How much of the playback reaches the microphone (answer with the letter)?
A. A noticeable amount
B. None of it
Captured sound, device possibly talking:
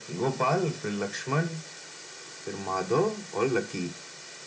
A